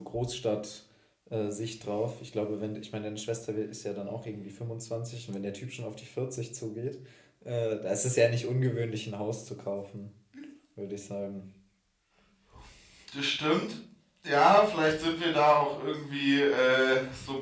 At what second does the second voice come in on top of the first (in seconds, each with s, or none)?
none